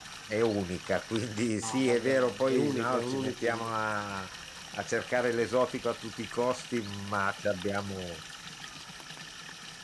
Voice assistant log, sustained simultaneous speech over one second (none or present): present